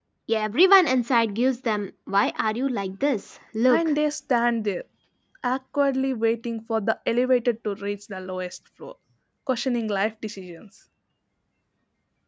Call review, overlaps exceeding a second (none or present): none